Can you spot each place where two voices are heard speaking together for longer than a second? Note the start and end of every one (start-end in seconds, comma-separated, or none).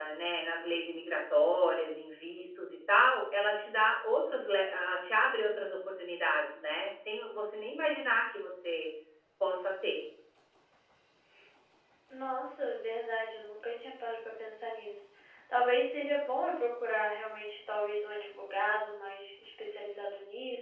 none